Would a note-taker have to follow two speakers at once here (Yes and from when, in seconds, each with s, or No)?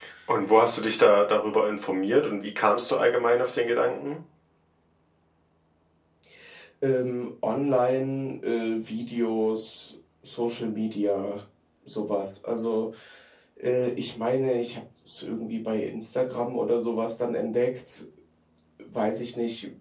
No